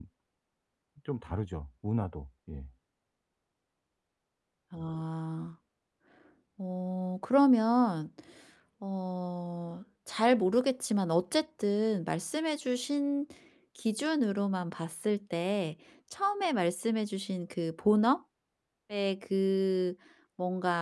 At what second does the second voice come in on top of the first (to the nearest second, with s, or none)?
none